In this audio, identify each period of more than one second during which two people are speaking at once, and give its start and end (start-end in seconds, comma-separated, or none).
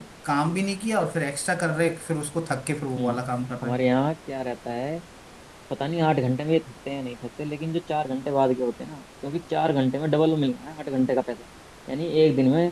none